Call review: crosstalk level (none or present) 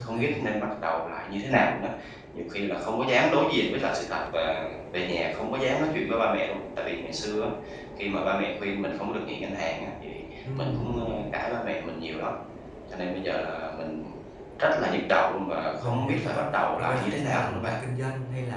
present